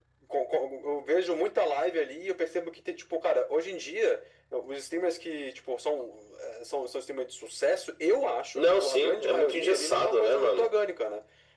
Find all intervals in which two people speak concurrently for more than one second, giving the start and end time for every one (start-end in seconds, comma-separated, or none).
8.5-10.7